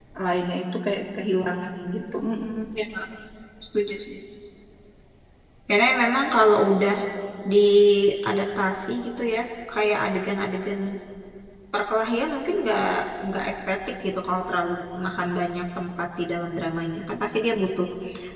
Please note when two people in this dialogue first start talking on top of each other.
none

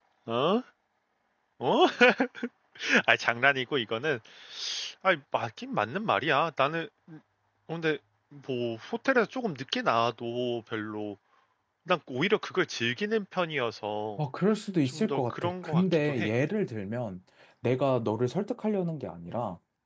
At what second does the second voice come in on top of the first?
14.8 s

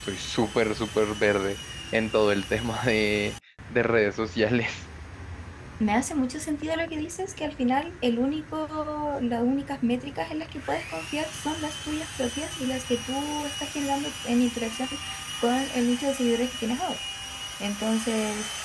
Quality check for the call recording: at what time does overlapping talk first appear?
none

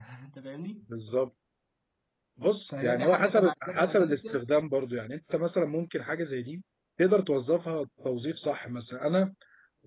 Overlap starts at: 2.7 s

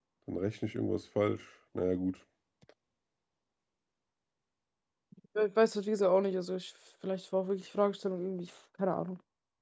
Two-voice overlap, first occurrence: none

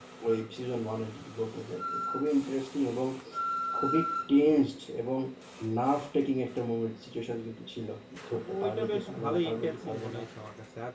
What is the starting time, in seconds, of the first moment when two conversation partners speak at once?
8.4 s

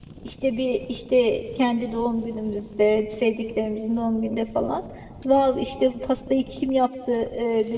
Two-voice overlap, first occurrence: none

